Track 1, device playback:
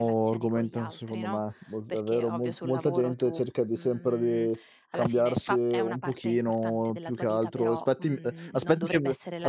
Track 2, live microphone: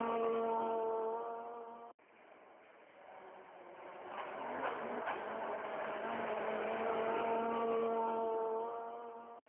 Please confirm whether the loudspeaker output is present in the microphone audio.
No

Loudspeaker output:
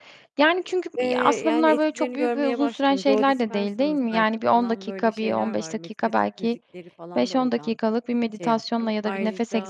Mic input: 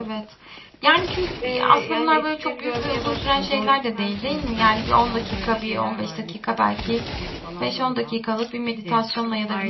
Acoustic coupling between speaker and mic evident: Yes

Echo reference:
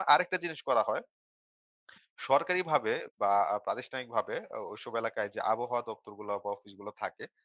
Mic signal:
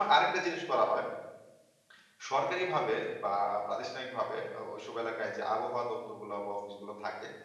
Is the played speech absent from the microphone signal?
No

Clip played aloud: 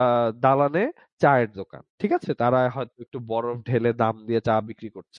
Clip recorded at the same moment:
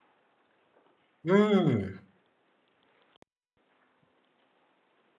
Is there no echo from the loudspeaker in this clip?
Yes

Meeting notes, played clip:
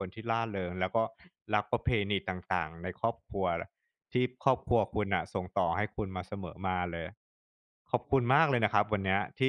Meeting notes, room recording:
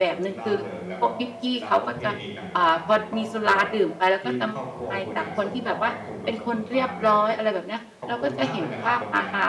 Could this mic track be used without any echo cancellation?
No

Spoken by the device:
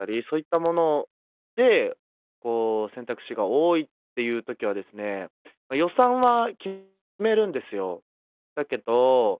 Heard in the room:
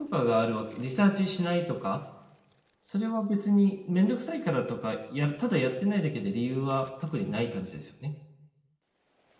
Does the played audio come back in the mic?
No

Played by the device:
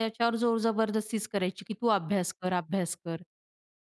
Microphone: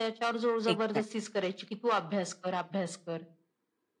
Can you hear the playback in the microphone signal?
Yes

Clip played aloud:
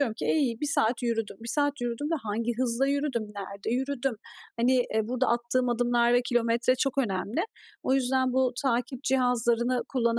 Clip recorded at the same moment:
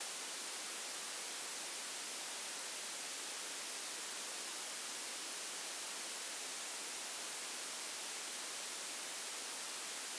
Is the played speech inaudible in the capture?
Yes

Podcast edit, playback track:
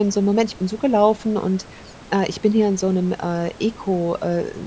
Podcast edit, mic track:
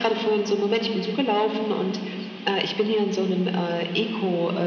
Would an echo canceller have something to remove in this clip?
Yes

